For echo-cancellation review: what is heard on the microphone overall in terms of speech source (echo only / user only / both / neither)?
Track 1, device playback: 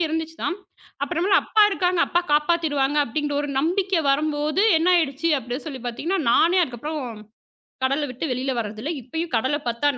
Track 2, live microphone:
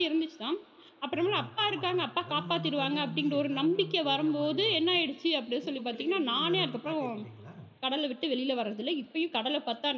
both